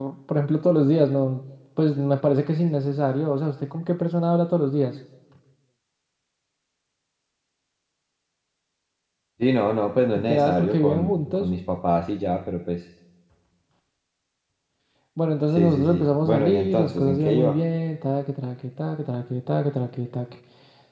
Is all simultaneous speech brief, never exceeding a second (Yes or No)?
No